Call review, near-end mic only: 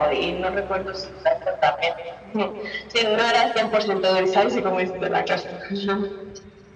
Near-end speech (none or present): none